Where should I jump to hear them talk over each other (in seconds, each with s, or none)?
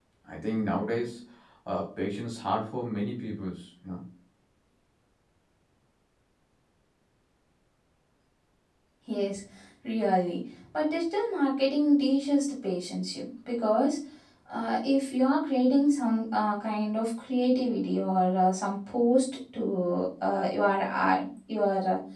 none